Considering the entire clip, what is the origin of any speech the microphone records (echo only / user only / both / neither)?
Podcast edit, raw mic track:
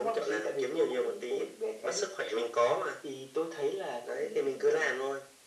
echo only